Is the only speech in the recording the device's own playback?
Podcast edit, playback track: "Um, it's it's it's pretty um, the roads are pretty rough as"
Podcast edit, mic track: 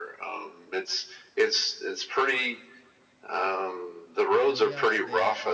No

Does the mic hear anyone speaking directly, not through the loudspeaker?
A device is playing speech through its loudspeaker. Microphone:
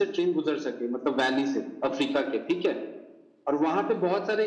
No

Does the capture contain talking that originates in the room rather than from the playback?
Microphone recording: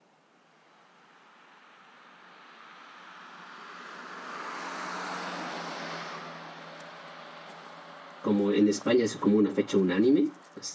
Yes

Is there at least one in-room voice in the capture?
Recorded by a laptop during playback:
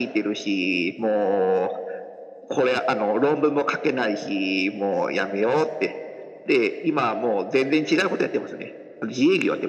No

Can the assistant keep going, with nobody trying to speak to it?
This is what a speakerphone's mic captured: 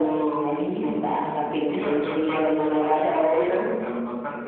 Yes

